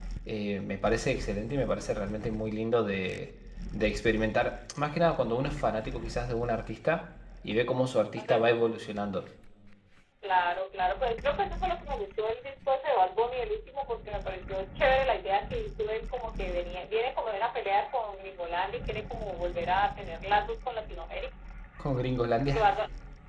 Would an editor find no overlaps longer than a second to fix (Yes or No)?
Yes